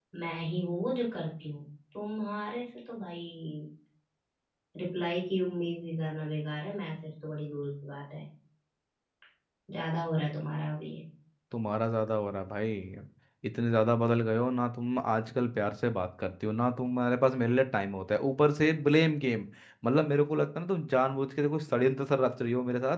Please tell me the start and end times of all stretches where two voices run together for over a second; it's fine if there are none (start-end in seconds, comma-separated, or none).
none